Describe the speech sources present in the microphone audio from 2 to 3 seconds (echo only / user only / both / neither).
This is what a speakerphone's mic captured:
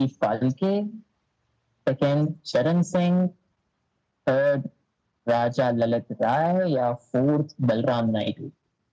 echo only